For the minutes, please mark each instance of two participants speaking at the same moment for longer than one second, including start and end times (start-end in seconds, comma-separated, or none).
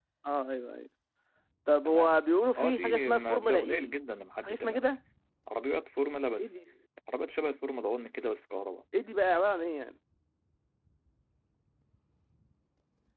2.6-3.9